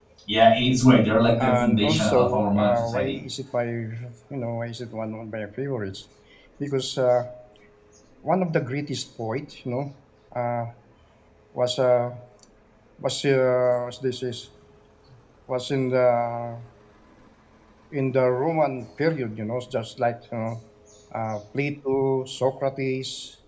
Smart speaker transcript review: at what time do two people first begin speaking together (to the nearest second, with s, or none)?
1 s